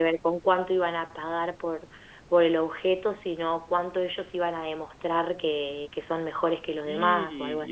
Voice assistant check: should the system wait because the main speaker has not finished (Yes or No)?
No